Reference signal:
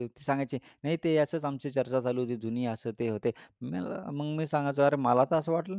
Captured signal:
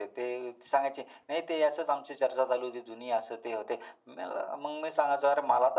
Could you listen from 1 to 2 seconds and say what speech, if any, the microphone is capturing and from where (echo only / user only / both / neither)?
echo only